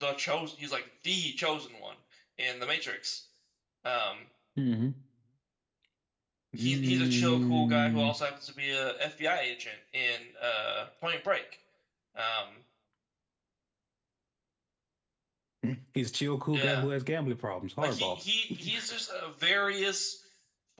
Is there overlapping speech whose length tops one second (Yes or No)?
Yes